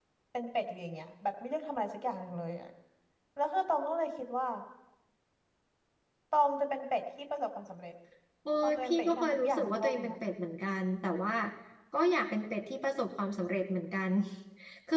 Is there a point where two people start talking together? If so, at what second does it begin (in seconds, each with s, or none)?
8.6 s